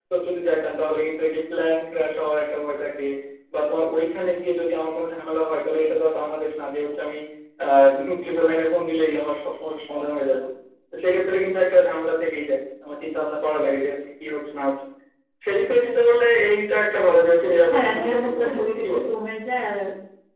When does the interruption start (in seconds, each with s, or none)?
17.7 s